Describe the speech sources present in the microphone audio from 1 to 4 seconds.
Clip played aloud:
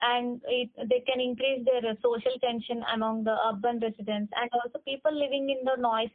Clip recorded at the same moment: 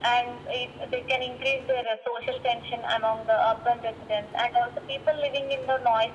echo only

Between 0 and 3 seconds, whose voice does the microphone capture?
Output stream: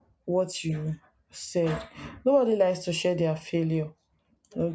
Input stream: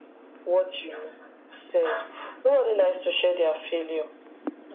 echo only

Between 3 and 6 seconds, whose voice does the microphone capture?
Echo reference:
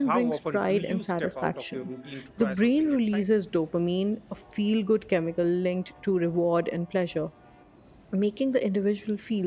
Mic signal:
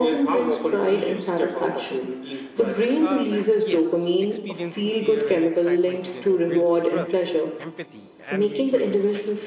both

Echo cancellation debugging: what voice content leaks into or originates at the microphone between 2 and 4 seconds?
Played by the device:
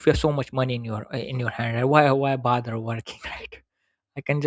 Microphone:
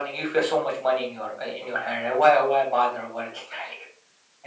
echo only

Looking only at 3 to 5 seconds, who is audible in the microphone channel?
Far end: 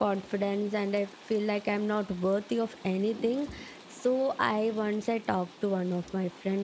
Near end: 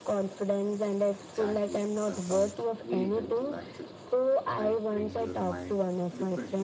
both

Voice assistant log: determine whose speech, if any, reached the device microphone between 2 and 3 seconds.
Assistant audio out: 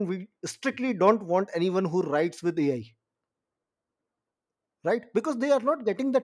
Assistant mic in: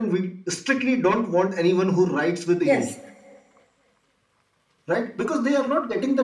both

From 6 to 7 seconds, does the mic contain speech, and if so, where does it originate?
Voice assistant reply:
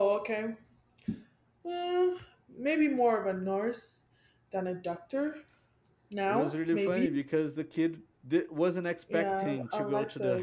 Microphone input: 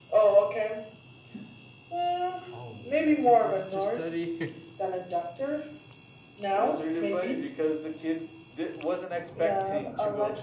echo only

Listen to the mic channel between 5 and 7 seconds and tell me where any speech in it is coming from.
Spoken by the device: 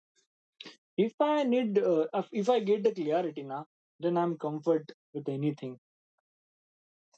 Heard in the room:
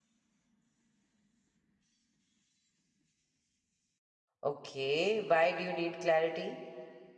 user only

